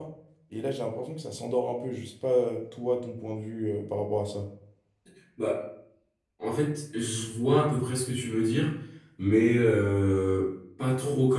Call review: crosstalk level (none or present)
none